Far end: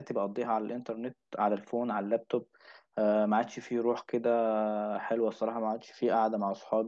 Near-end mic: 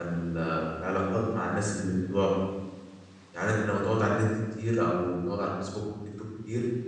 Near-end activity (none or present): present